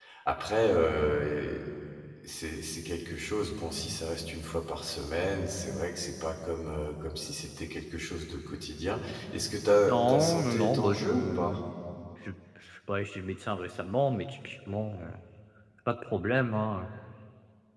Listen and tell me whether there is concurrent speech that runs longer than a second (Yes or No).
Yes